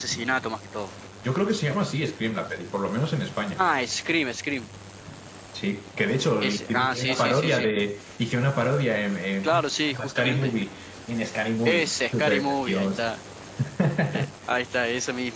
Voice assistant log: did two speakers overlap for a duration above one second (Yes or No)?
Yes